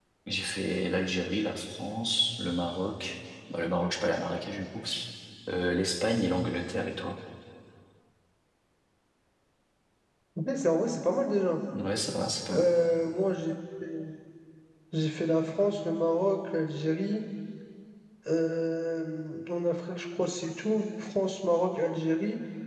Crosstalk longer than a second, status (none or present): none